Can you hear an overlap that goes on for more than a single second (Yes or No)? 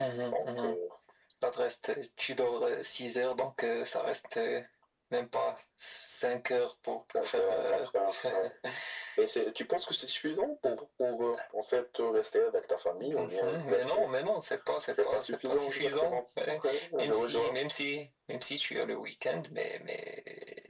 Yes